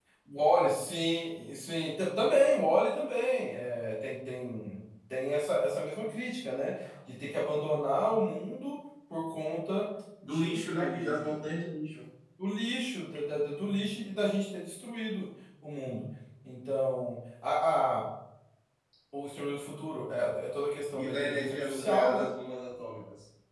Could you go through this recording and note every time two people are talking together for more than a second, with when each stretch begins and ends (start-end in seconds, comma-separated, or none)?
10.2-11.5, 21.0-22.3